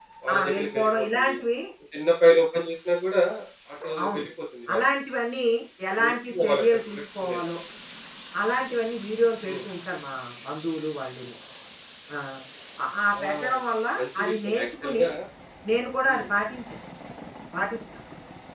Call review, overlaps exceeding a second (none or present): present